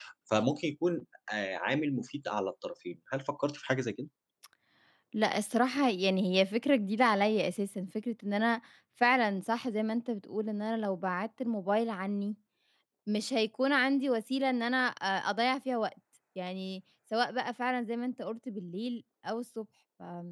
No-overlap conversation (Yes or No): Yes